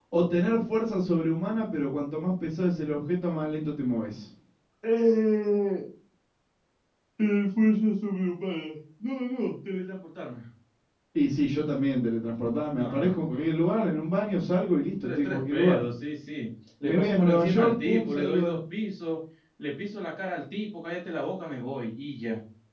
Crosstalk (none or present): present